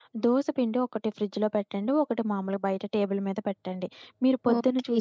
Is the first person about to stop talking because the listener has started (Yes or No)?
No